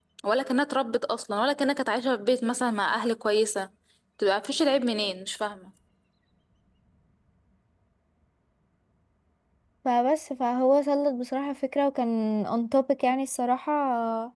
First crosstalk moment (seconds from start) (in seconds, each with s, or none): none